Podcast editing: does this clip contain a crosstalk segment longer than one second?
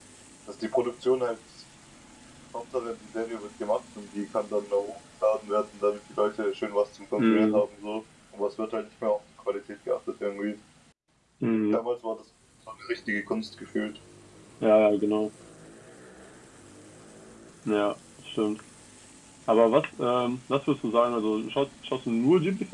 No

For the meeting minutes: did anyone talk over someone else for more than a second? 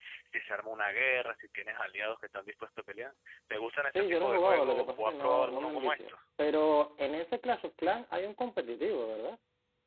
Yes, from 3.9 s

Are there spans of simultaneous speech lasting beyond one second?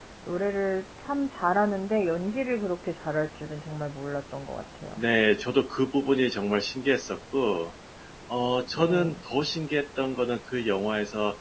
No

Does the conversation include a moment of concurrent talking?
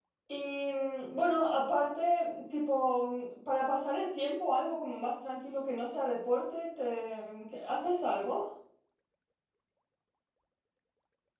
No

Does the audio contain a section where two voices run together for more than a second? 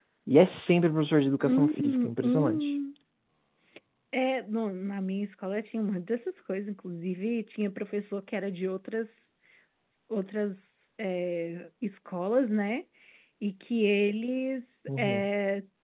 Yes, from 1.4 s

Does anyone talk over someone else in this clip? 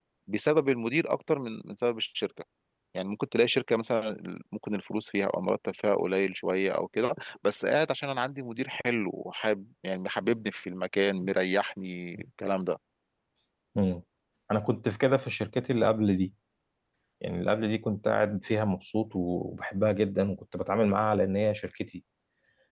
No

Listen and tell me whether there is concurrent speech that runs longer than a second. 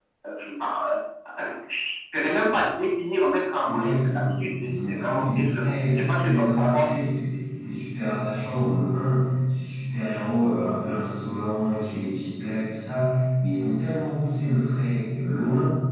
Yes, from 3.6 s

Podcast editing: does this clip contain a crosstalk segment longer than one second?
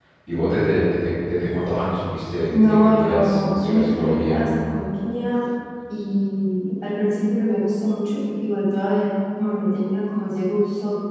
Yes, from 2.5 s

